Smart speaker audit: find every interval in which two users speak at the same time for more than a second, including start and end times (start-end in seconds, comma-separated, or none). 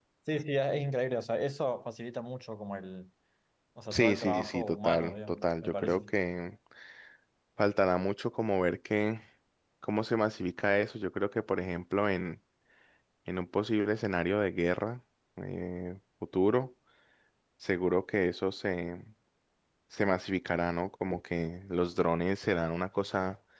3.9-6.1